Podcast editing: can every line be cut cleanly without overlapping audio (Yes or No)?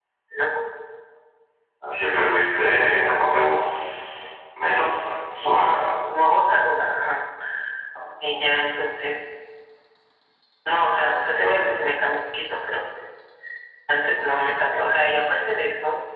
No